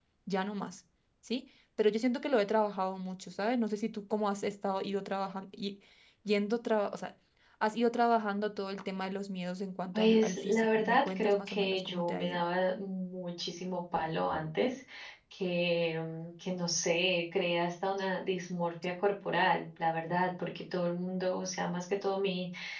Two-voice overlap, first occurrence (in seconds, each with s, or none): 9.9 s